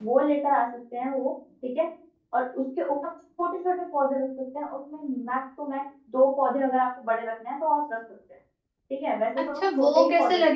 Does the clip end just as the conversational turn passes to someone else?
Yes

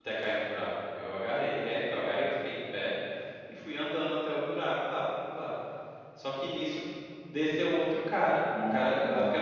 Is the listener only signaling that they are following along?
Yes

